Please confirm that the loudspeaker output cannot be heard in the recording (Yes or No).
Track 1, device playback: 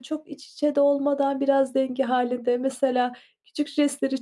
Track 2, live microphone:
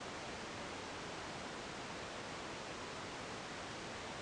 Yes